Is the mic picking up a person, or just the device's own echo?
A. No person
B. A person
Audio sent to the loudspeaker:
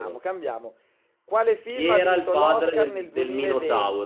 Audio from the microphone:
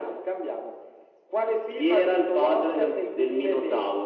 A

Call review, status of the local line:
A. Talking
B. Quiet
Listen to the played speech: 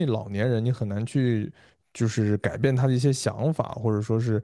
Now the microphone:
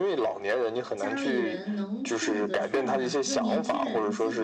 A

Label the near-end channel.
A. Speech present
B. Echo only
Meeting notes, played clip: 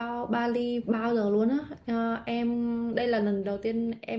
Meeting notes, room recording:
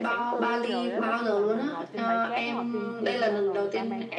A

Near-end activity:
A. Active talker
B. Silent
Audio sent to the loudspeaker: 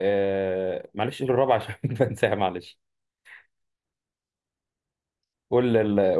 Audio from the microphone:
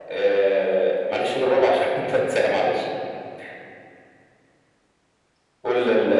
B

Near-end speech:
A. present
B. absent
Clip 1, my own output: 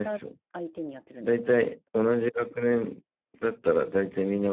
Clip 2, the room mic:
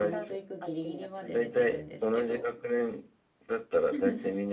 A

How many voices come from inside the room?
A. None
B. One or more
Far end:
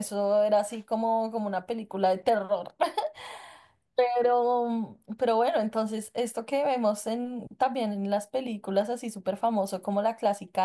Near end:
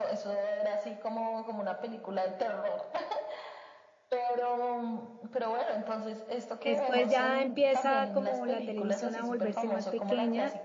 B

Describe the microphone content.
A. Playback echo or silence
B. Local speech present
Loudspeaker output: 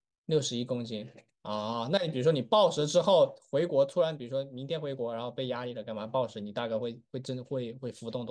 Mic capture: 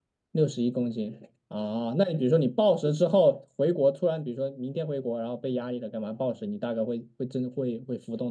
A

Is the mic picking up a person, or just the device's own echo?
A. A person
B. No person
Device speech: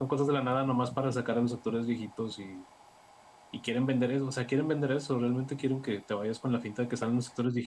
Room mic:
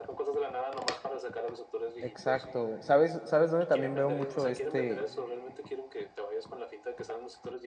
A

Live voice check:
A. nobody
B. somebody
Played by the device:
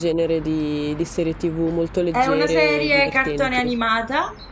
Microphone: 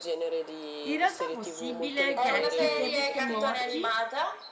B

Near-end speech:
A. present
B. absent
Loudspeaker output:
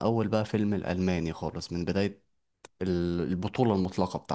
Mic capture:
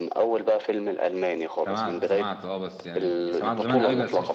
A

